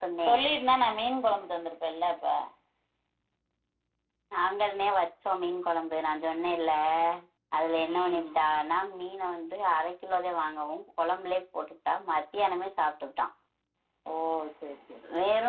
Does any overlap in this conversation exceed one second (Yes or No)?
No